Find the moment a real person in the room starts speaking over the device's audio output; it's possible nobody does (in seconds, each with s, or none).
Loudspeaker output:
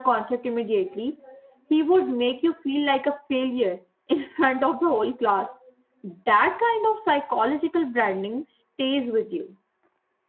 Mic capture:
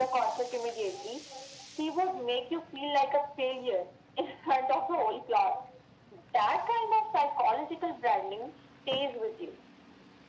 none